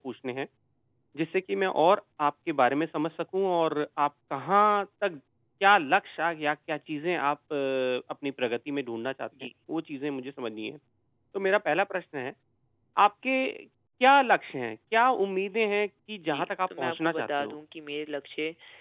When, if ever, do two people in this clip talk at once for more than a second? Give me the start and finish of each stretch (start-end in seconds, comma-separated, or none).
16.3-17.6